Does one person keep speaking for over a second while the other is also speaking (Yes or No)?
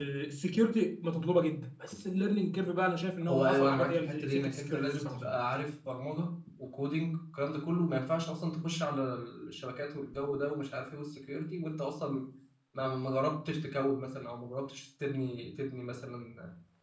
Yes